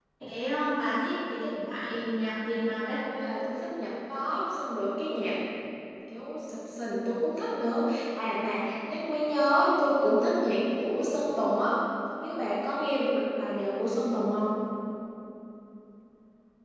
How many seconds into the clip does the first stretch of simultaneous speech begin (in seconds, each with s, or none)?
none